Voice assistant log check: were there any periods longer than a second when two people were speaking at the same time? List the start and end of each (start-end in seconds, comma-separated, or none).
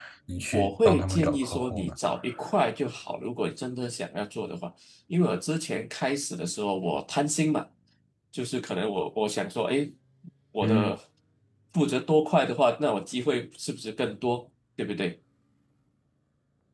0.5-1.9